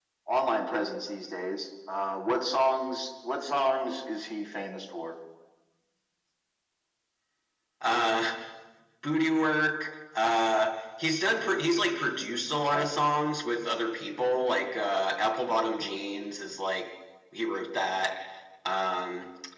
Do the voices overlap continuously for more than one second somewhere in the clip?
No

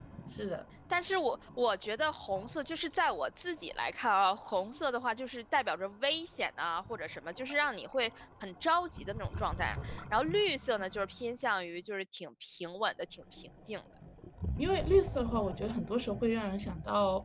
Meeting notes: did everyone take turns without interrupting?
Yes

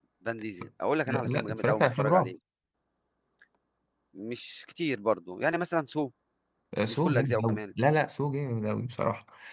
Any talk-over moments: Yes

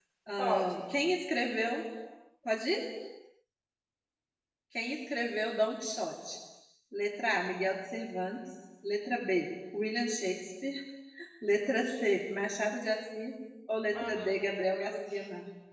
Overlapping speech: Yes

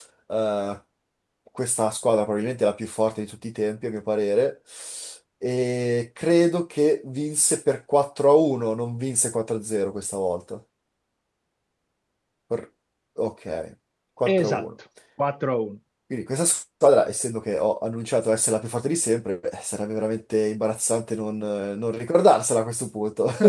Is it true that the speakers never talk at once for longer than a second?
Yes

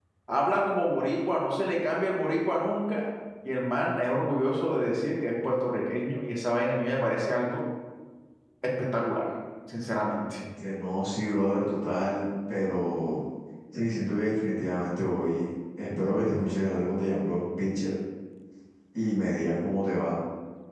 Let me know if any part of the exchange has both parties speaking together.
No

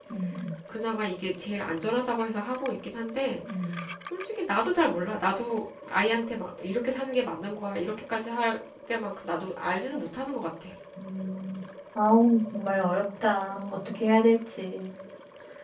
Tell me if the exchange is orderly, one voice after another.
Yes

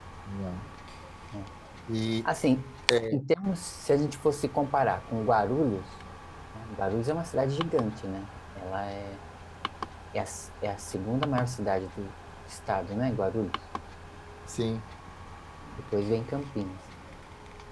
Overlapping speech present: No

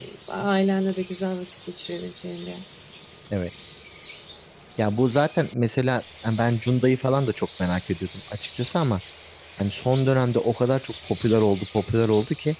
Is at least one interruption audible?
No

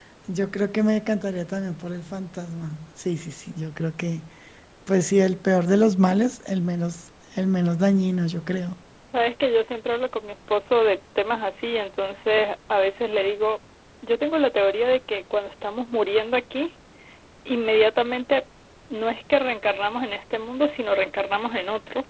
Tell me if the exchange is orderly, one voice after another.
Yes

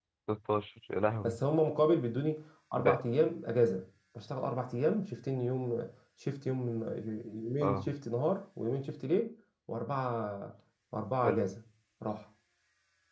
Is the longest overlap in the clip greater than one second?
No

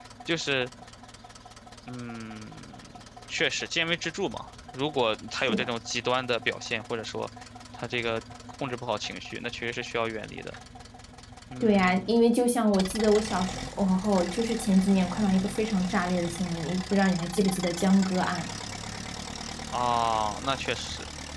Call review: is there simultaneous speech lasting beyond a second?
No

